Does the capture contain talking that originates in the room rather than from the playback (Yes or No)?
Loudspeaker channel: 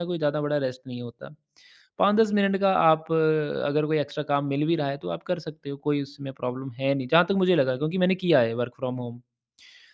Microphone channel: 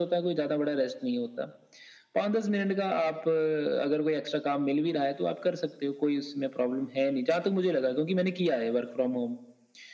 No